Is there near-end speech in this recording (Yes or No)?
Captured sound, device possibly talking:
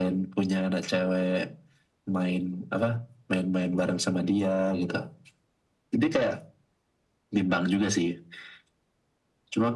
No